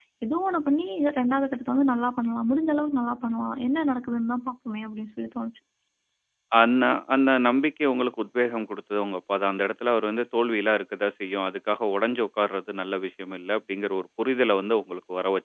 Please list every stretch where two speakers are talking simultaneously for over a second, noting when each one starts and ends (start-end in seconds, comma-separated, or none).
none